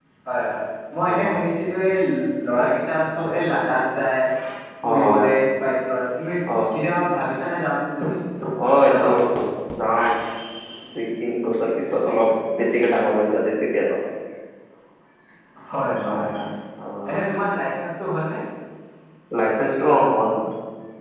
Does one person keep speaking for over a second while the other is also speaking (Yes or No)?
No